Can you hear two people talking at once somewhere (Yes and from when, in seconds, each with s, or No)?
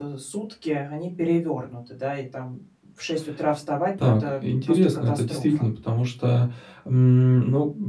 Yes, from 4.0 s